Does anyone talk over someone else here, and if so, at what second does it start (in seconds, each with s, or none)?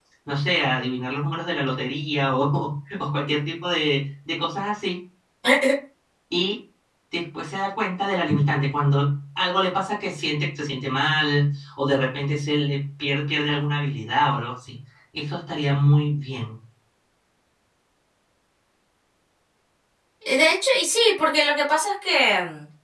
none